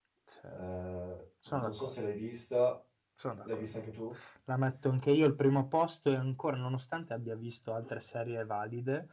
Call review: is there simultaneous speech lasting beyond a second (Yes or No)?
No